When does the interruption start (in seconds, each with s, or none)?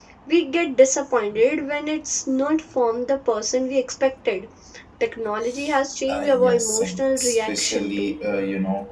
6.1 s